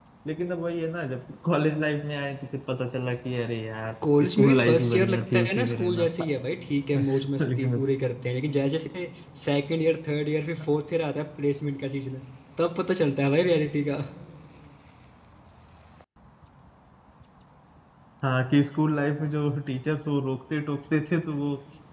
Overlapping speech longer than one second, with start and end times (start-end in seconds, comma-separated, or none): 4.2-6.1